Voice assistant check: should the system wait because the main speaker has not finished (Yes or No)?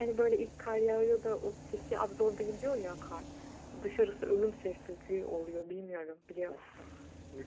No